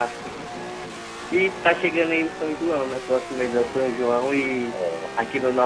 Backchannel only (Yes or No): Yes